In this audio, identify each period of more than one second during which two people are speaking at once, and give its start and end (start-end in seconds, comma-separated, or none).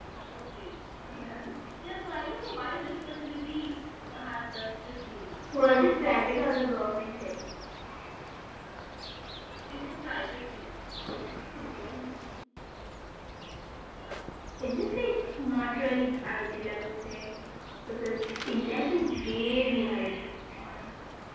none